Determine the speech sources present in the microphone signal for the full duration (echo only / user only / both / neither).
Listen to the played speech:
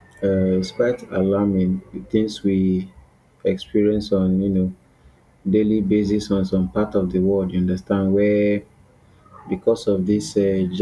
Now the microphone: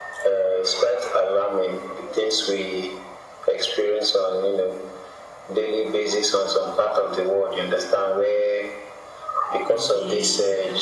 both